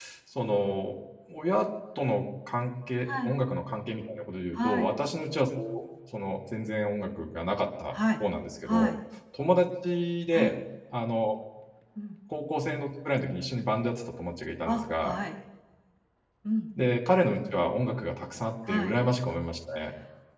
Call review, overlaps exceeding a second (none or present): none